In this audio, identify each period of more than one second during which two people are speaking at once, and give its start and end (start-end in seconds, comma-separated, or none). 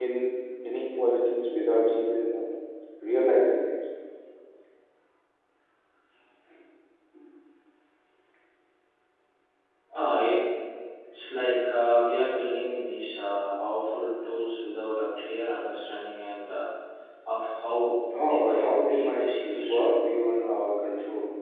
18.2-19.8